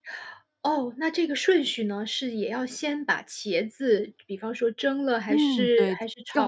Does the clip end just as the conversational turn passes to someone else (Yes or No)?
Yes